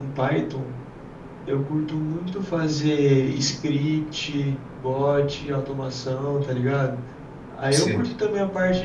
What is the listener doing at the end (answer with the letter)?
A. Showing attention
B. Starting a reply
A